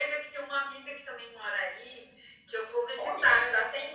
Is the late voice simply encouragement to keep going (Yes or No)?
Yes